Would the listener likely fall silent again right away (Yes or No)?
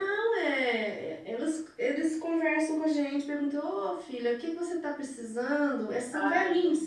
Yes